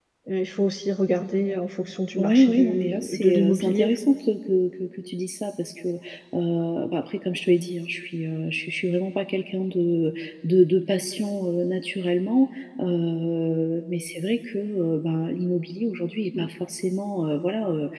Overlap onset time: 2.2 s

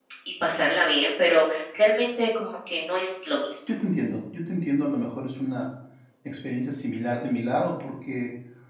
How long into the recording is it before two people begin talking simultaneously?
none

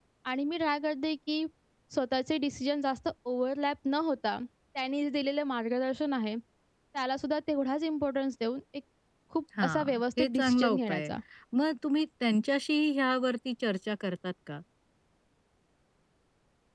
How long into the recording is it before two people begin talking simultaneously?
9.6 s

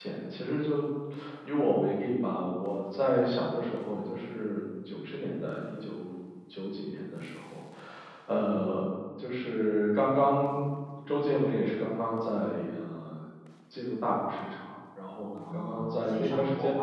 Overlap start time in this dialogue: 15.3 s

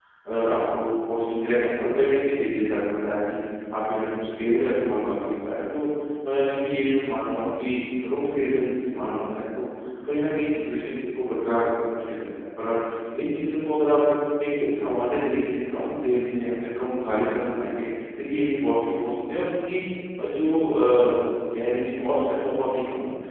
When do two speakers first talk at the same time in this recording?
none

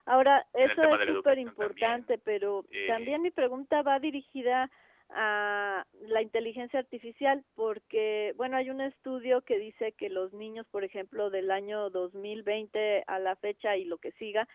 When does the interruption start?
0.6 s

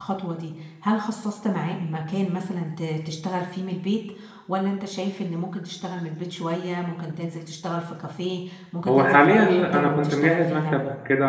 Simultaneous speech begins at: 8.9 s

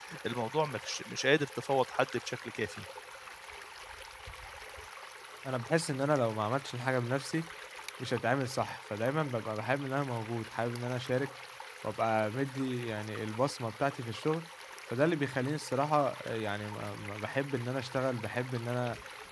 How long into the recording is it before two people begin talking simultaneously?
none

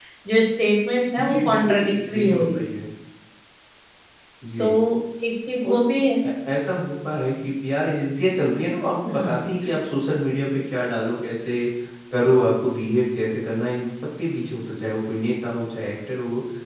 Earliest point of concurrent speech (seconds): 1.2 s

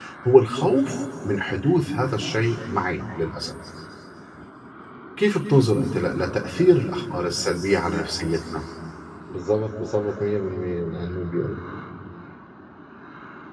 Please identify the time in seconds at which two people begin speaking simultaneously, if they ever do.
none

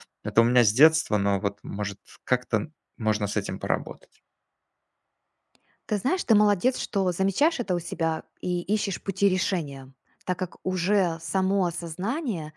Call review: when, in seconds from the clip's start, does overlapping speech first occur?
none

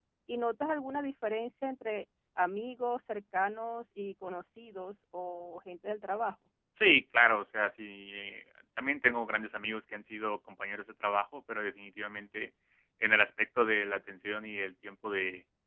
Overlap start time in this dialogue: none

